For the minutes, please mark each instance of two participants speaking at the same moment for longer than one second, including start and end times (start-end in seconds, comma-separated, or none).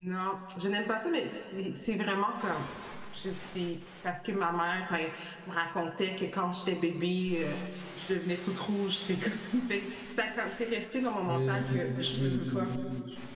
11.3-12.7